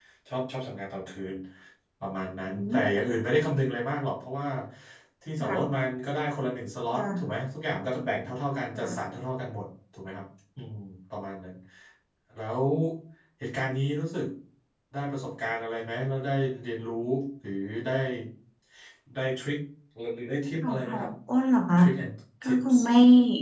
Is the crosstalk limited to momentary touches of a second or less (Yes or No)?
Yes